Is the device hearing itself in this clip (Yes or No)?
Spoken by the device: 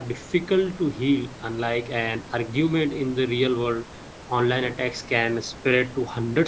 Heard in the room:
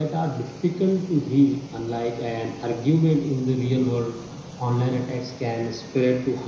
Yes